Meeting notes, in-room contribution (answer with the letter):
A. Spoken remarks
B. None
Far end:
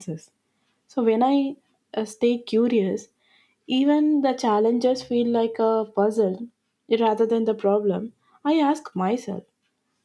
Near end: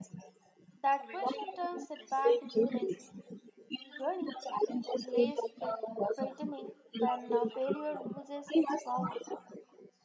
A